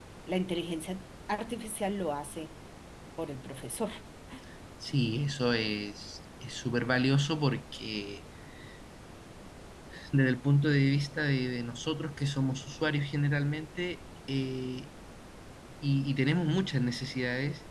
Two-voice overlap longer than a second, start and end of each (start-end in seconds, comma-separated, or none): none